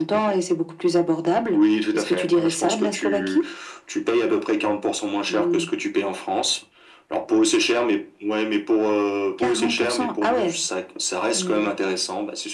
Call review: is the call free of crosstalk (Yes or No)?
No